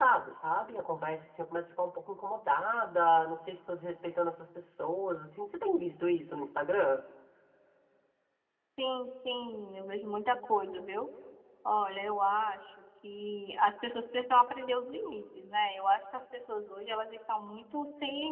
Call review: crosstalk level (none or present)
none